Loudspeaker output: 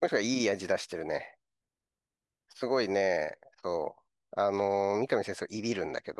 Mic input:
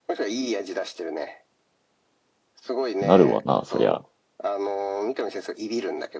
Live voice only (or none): なるわな、そりゃ。